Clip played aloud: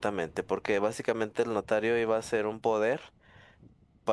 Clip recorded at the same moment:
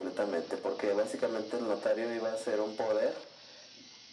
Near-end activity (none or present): none